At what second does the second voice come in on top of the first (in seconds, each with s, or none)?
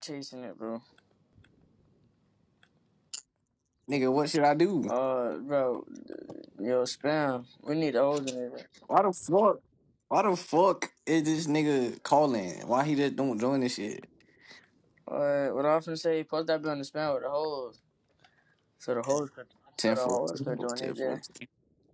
19.8 s